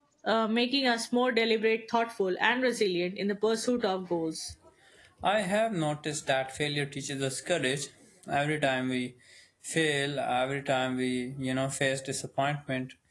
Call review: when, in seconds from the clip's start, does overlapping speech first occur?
none

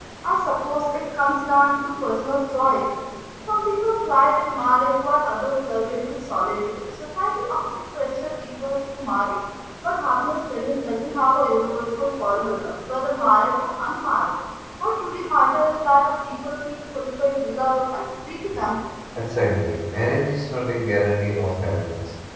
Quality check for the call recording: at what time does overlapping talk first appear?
none

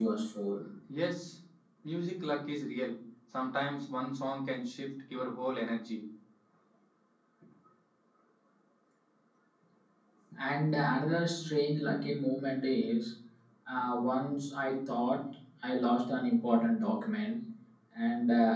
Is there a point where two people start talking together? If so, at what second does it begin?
none

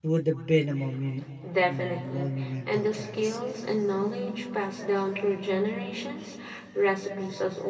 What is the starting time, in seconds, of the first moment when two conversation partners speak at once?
1.4 s

